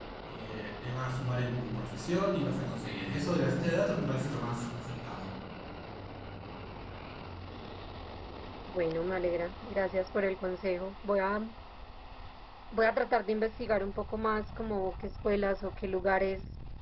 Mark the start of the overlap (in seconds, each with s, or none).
none